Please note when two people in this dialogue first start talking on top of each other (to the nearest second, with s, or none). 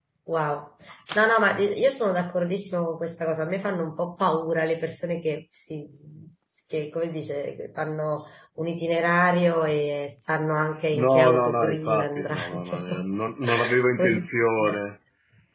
11 s